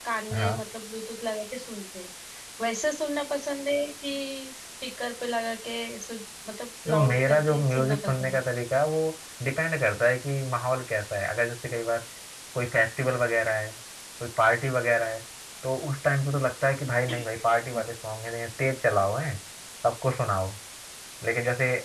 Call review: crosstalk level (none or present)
present